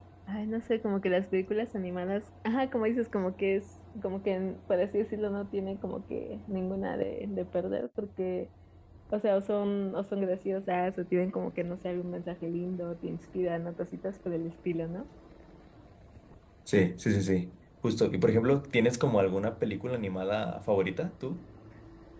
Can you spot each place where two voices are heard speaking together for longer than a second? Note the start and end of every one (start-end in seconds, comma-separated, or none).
none